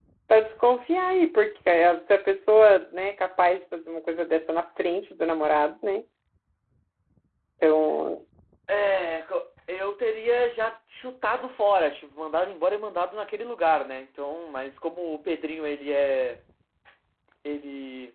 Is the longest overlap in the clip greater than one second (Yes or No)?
No